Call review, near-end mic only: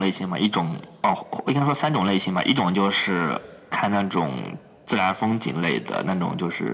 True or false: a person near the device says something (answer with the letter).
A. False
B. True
A